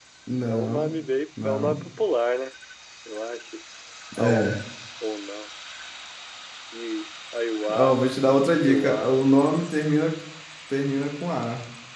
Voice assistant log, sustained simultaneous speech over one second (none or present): none